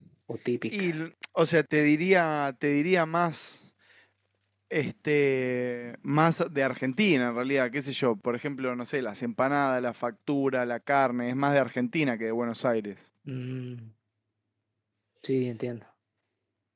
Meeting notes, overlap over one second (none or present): none